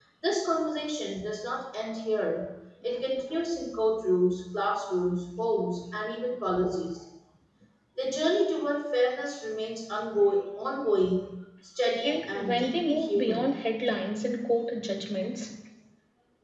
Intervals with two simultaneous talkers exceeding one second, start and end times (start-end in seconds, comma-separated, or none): 12.0-13.5